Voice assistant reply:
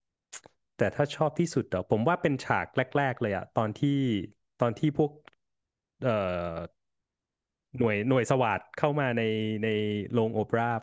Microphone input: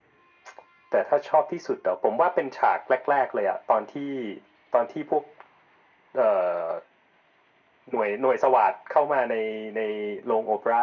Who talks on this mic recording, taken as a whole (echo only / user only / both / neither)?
echo only